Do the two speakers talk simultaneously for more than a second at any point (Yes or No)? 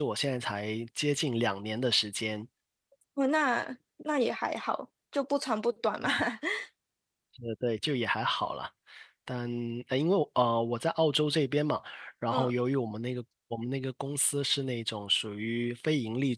No